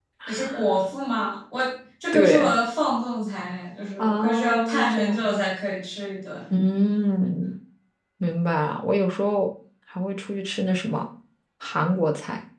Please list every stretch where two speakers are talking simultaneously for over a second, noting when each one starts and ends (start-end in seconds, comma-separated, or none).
4.0-5.3